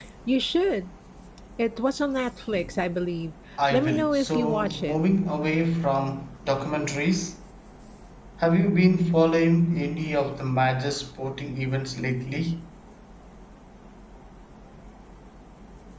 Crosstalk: present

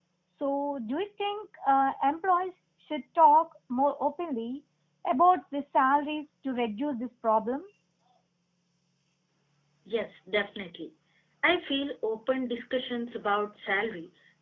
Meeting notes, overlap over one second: none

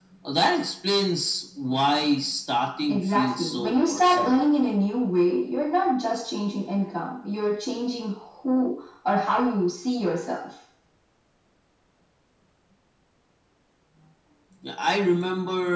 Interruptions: present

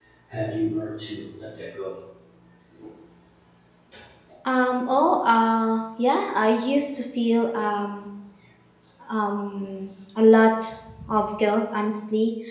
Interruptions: none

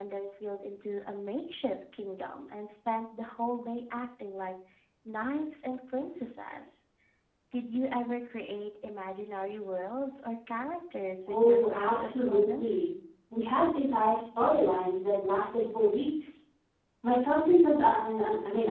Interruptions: present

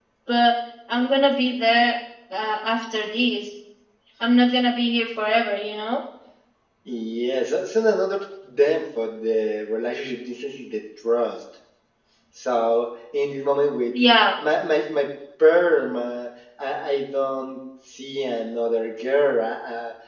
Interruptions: none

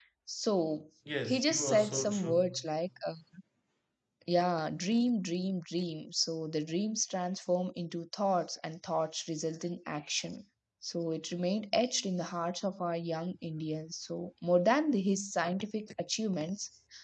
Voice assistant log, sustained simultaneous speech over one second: present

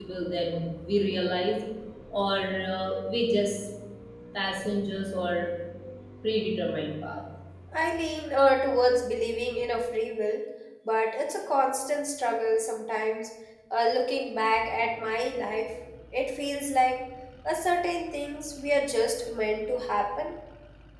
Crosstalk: none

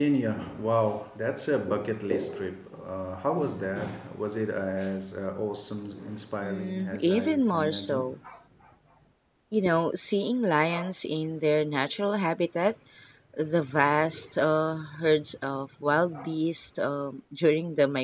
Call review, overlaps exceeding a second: present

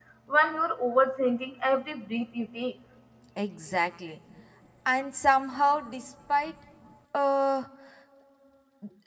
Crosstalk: none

